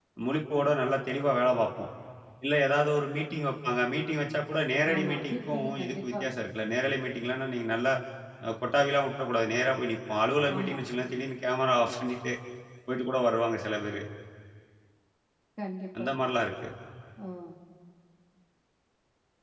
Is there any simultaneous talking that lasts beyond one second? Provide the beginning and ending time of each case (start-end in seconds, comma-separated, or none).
4.9-6.2